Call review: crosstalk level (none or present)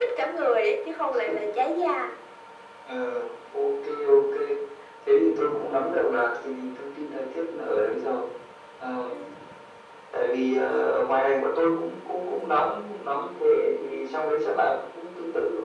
none